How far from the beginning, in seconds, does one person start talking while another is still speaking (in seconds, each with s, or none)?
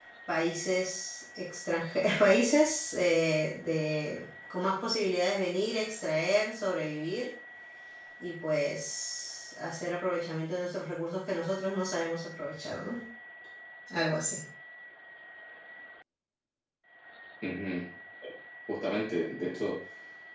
none